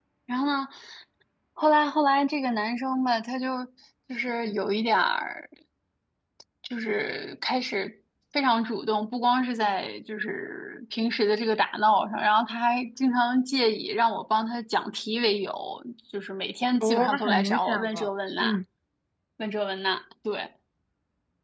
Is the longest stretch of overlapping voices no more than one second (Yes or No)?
No